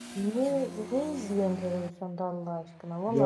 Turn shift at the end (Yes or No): No